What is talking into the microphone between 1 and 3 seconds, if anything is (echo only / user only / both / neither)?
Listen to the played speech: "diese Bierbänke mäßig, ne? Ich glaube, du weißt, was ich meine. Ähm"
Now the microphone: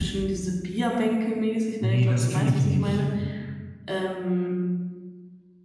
both